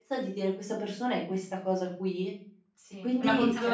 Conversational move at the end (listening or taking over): taking over